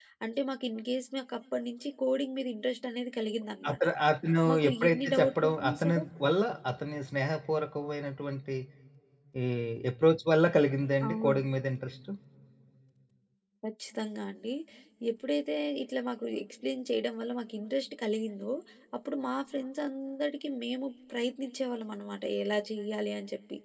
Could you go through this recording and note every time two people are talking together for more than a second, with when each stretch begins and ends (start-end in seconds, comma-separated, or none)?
4.5-6.0